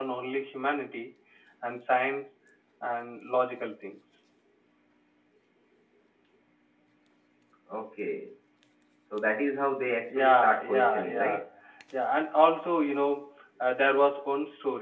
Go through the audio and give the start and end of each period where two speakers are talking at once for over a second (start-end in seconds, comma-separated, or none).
10.1-11.4